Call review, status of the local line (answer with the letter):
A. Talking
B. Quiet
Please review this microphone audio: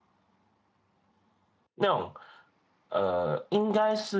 B